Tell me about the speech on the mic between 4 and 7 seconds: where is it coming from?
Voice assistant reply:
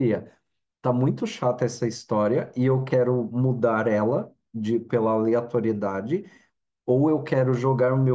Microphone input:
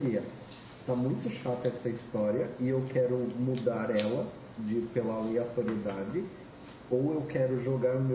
echo only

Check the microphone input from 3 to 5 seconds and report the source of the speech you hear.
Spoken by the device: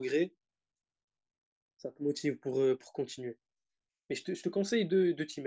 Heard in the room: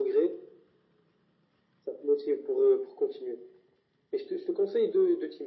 echo only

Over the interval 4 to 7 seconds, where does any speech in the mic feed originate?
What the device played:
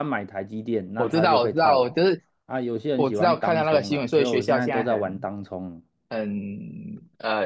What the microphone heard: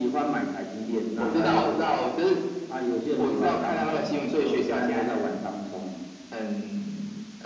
echo only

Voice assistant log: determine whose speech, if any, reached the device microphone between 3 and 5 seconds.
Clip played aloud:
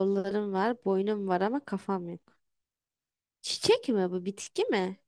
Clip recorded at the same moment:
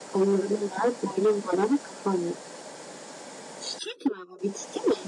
echo only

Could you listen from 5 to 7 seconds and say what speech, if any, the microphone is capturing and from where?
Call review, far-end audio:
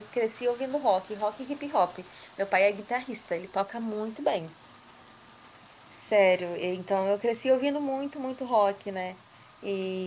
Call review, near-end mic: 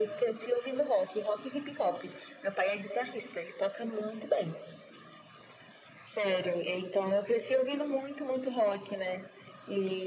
echo only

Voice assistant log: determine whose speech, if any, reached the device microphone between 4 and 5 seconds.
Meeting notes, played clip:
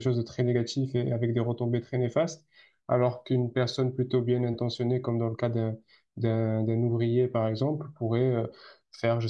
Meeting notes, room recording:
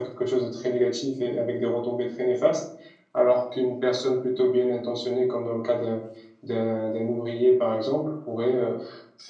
echo only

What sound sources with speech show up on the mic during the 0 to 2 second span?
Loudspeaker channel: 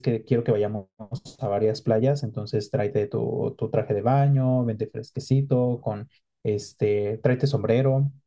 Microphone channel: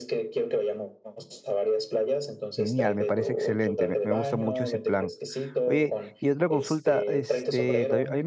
echo only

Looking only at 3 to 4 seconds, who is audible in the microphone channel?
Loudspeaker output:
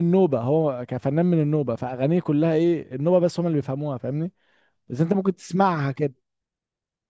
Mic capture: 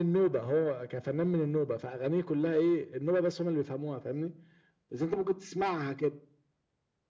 echo only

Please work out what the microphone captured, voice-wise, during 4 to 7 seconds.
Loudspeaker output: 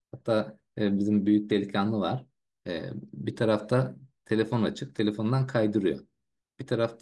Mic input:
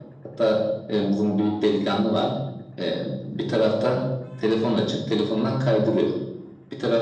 echo only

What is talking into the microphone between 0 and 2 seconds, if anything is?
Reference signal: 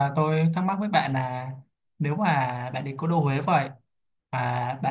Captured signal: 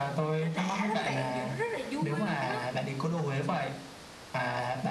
both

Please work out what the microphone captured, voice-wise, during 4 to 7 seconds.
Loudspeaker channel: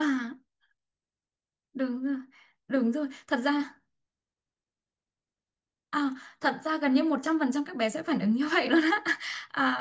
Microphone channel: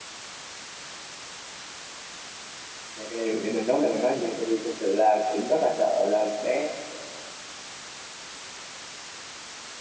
user only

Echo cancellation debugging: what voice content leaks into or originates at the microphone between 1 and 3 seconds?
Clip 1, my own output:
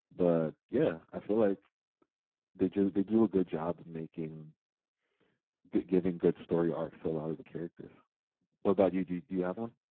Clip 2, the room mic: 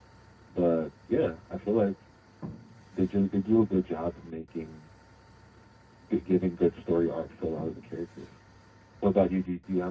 echo only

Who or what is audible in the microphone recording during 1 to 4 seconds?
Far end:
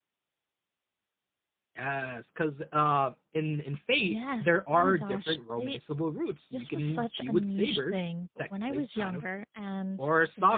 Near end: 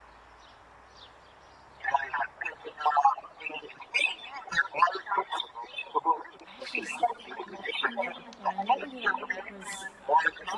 echo only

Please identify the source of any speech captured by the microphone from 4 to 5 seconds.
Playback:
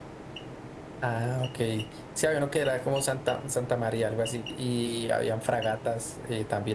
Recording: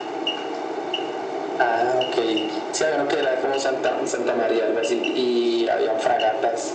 echo only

